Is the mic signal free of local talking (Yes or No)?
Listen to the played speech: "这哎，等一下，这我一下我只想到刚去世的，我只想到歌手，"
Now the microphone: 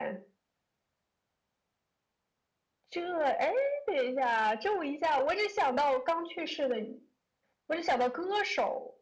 Yes